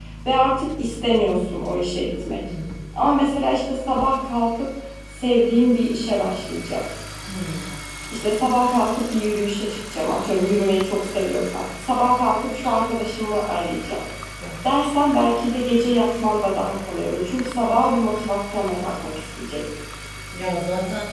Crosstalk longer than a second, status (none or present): none